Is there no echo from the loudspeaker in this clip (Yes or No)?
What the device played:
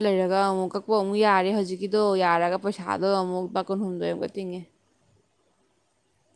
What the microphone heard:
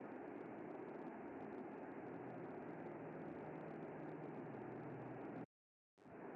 Yes